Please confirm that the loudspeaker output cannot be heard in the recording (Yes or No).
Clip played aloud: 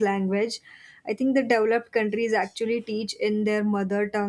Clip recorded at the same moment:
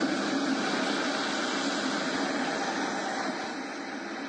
Yes